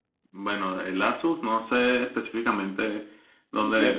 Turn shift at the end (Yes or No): No